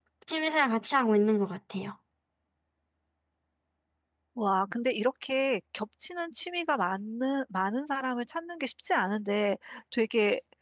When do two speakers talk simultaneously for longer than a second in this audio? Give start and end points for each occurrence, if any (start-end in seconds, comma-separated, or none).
none